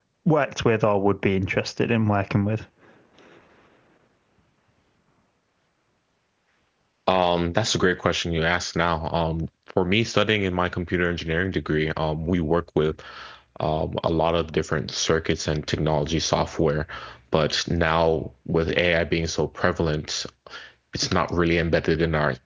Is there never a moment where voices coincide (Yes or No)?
Yes